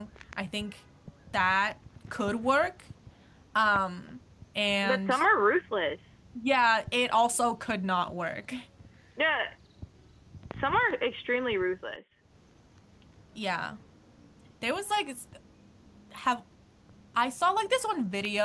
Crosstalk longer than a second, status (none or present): none